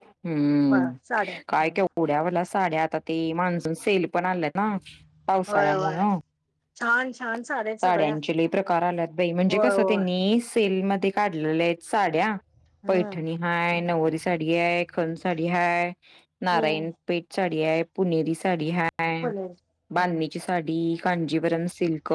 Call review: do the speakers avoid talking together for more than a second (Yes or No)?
Yes